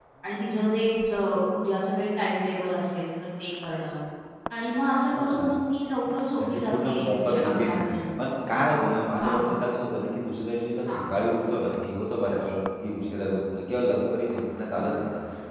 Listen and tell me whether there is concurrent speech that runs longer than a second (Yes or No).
Yes